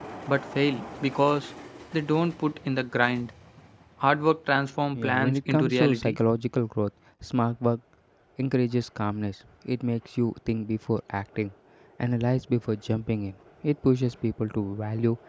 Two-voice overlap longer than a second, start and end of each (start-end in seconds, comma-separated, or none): 4.9-6.2